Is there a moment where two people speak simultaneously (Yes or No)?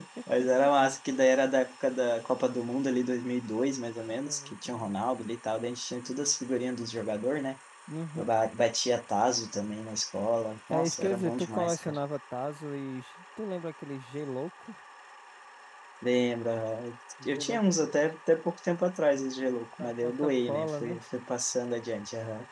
Yes